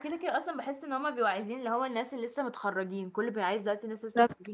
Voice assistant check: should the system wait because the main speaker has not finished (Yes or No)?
No